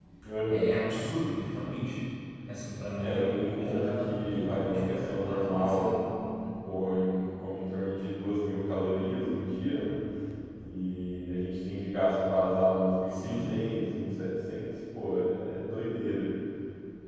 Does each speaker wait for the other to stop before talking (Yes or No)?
No